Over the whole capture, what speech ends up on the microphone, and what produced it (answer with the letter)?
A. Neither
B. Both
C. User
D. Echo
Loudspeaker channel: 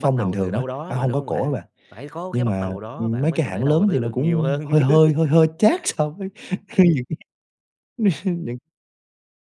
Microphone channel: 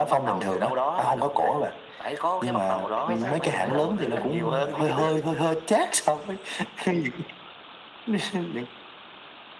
B